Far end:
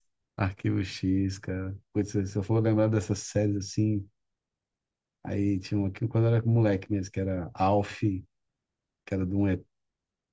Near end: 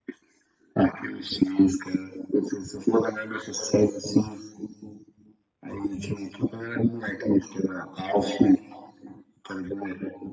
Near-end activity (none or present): none